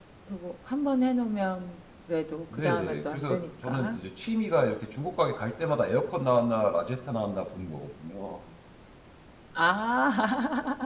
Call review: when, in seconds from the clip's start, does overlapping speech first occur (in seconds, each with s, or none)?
2.5 s